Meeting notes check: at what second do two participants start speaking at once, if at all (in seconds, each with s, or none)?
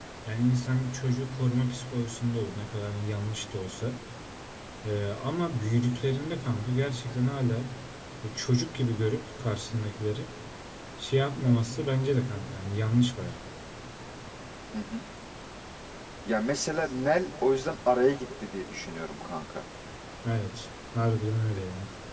none